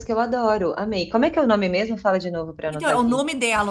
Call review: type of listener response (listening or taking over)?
taking over